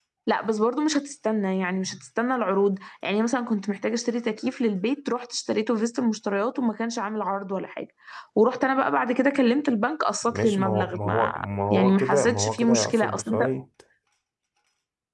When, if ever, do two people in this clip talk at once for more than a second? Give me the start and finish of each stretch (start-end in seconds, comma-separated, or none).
10.2-13.5